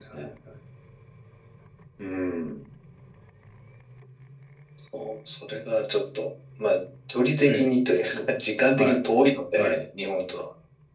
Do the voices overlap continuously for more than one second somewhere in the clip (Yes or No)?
No